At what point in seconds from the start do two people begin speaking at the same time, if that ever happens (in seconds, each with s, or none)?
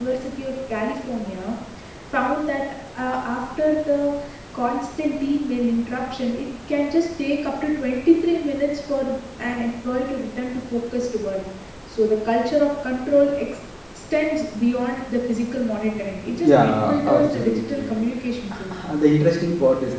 16.4 s